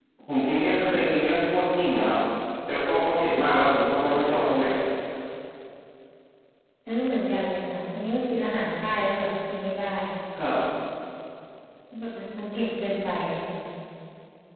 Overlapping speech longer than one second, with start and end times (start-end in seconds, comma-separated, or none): none